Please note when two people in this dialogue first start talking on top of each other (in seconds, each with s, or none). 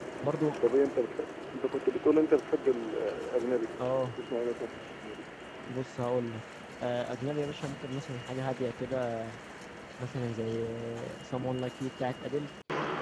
none